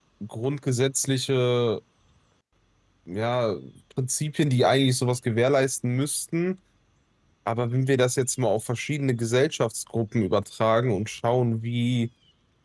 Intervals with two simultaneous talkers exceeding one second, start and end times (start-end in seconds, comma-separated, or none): none